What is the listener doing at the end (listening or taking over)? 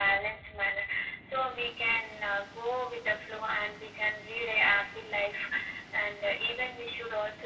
listening